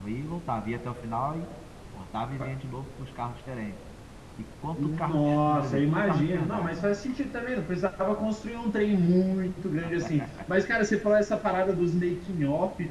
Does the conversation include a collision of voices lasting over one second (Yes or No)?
Yes